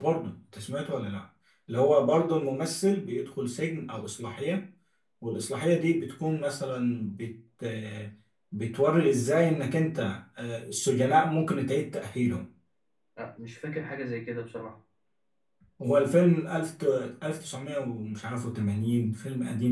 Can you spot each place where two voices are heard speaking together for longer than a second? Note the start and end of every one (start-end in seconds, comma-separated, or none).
none